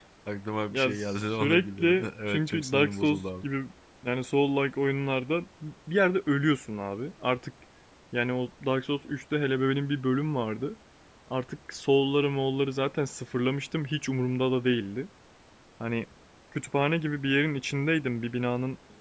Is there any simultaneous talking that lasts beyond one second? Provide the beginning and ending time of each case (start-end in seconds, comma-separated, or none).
1.4-3.4